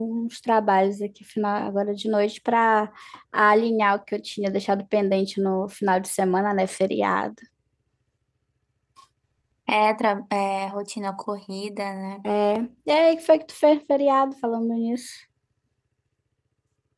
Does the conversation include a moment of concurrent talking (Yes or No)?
No